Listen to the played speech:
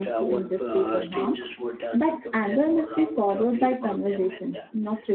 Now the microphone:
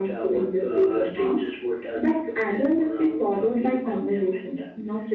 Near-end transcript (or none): none